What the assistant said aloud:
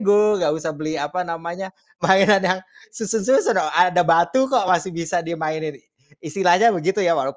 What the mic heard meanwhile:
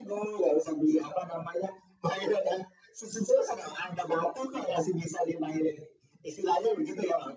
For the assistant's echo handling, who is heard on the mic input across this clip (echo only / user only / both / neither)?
echo only